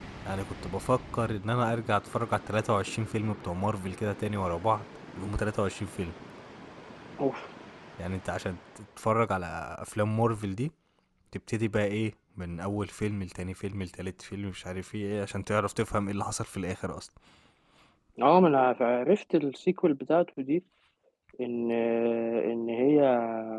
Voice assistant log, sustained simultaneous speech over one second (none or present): none